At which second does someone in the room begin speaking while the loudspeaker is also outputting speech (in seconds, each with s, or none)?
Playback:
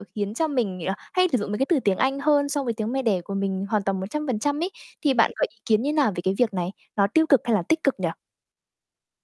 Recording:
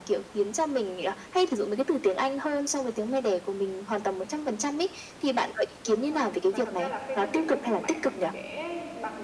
5.8 s